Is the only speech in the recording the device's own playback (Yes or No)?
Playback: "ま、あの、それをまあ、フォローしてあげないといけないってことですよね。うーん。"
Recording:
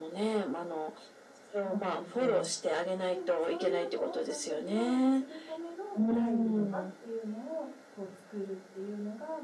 No